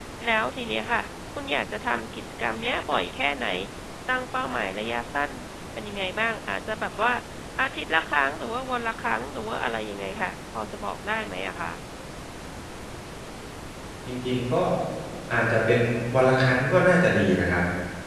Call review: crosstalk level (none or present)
none